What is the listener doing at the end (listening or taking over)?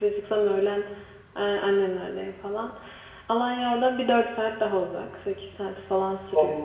listening